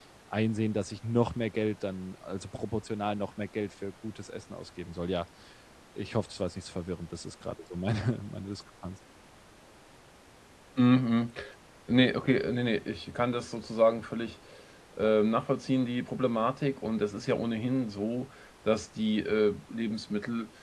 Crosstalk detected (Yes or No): No